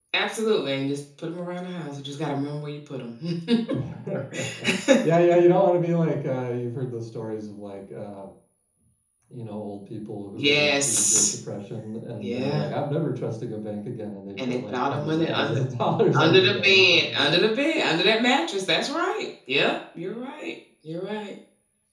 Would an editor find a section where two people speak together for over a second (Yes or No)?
Yes